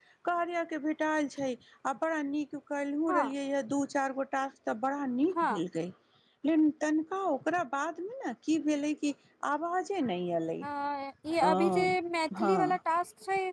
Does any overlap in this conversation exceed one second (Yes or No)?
No